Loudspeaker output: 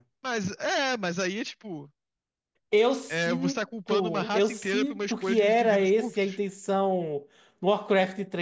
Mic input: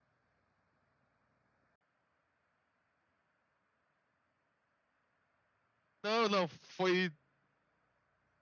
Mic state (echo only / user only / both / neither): user only